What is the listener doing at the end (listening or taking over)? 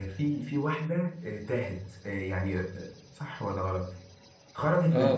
taking over